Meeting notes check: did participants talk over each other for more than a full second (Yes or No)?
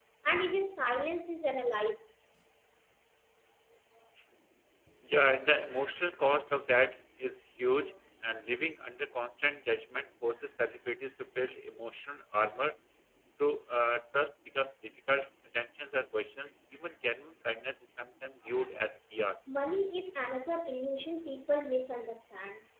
No